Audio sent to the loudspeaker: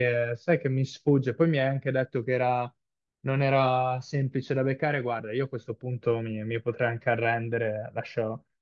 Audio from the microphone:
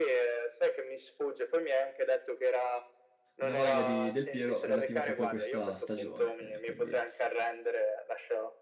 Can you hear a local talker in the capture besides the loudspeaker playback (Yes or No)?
Yes